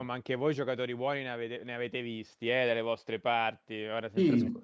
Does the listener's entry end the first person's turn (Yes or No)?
No